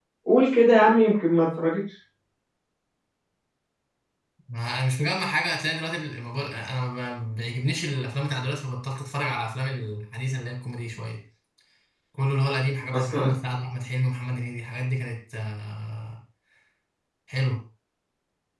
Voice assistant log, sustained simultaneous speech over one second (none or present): none